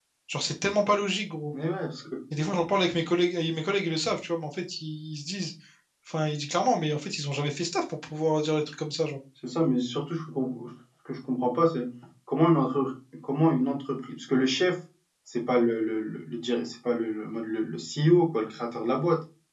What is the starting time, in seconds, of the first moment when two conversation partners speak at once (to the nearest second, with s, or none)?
none